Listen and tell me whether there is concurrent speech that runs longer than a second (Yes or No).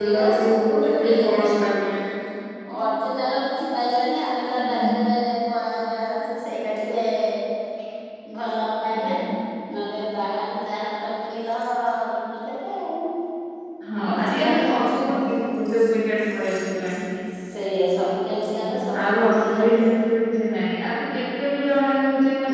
Yes